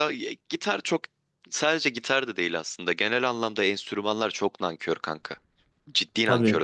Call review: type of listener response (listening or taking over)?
taking over